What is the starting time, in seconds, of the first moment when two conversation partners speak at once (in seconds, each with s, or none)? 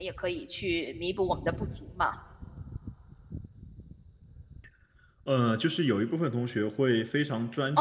none